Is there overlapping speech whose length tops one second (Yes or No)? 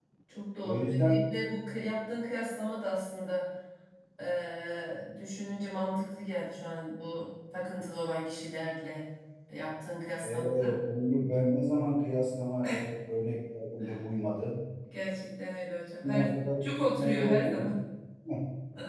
Yes